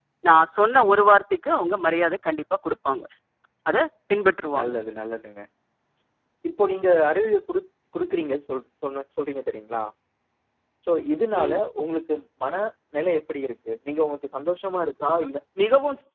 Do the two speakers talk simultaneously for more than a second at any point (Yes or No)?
No